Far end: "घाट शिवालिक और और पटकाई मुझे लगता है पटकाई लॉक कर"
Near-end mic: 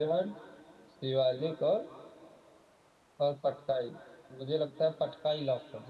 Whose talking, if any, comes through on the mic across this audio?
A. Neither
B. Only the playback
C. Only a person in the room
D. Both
B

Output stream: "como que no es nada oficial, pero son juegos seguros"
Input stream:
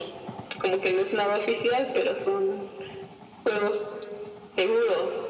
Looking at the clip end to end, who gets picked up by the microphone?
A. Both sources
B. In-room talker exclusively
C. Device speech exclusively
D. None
C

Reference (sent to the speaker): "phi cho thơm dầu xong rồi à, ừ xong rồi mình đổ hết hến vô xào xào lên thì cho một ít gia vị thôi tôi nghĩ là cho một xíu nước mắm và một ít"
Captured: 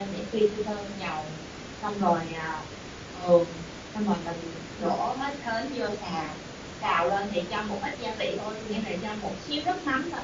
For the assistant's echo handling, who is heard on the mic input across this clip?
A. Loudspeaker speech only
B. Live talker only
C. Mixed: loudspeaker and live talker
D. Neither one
A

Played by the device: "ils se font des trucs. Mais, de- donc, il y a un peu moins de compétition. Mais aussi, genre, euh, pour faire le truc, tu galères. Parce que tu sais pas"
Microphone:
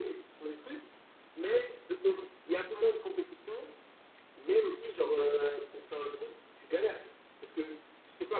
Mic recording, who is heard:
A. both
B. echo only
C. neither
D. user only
B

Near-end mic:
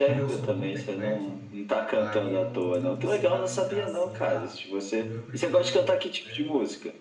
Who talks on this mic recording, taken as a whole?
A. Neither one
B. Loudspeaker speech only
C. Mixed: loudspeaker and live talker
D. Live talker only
C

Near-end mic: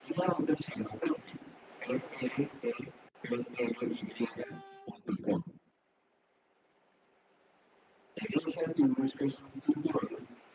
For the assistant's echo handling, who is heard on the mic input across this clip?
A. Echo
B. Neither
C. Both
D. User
A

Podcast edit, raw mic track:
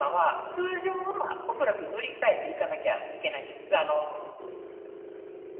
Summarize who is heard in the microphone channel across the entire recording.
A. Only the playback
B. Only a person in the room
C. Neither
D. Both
A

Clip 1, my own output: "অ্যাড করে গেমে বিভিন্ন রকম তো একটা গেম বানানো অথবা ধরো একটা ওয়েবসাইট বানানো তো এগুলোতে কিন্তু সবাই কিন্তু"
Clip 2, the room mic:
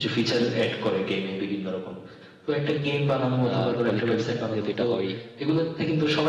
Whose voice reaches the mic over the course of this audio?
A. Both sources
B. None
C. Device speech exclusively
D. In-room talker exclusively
A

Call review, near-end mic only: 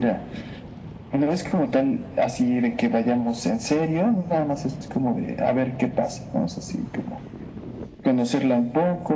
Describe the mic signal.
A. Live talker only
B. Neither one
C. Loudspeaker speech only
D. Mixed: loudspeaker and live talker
C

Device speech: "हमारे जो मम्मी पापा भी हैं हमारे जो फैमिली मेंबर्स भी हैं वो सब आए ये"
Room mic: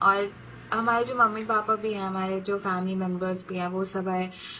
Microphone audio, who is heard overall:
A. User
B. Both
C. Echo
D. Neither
C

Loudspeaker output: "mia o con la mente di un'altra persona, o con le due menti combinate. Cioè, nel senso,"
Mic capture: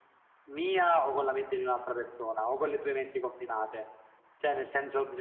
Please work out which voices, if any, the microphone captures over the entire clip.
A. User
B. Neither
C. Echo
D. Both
C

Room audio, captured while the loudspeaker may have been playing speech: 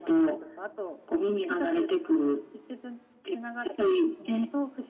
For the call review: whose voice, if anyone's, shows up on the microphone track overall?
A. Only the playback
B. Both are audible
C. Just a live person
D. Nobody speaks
A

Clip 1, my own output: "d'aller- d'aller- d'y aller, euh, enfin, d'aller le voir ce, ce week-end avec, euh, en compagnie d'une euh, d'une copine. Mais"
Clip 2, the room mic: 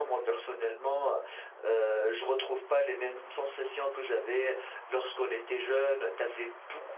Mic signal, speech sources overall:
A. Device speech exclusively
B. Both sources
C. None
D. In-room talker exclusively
D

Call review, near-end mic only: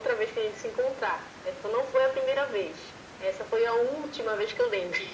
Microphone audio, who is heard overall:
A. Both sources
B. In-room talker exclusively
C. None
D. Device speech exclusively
D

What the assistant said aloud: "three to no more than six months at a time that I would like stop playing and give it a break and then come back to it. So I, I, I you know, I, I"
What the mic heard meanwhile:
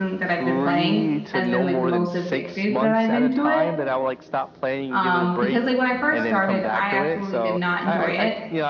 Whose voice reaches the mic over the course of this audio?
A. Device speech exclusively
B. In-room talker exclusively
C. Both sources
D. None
C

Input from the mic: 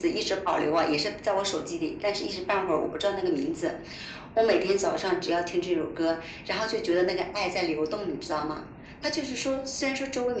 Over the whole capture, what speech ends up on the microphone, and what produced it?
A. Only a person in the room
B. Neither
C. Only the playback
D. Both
C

